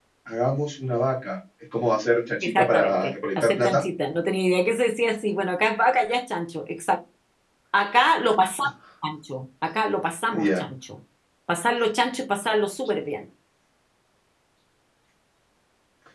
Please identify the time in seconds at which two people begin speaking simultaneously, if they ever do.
2.4 s

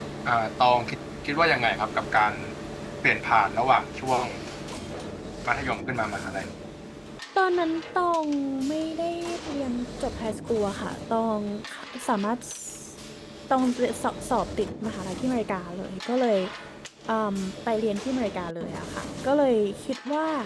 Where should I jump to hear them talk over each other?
none

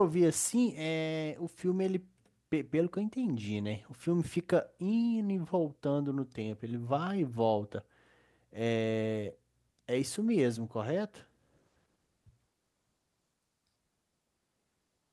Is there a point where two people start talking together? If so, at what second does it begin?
none

